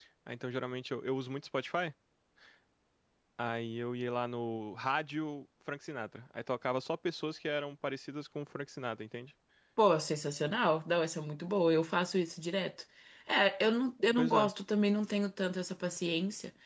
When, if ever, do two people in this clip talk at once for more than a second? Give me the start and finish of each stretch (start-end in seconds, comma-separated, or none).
none